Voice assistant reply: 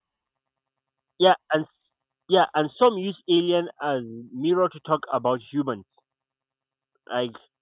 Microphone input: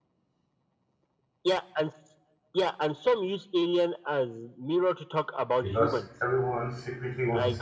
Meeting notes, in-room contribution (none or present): present